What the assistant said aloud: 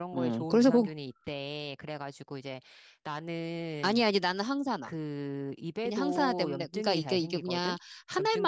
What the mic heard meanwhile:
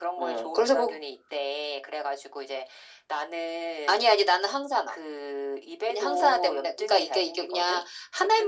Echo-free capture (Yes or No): No